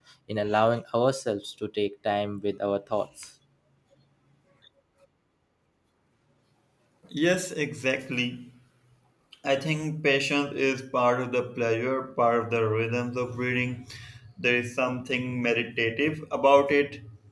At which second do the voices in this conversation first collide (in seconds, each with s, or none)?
none